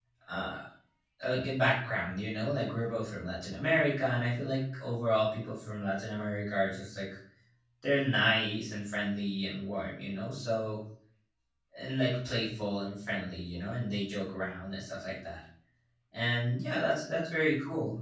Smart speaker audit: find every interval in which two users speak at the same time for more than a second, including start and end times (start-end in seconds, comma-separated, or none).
none